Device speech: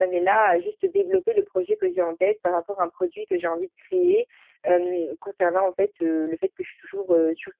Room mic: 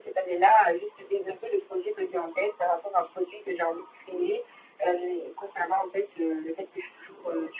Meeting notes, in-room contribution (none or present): none